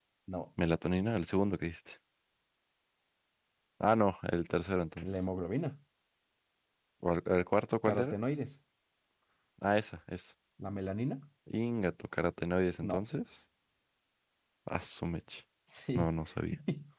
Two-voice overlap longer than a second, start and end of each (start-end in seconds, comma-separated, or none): none